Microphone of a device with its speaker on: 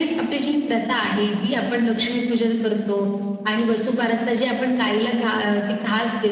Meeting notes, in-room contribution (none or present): none